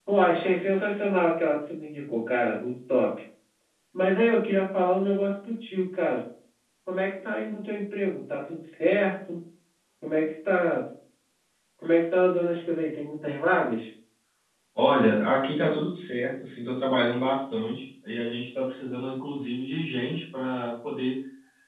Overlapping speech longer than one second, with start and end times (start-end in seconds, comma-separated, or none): none